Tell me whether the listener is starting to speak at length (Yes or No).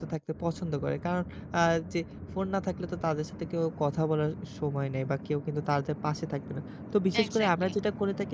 No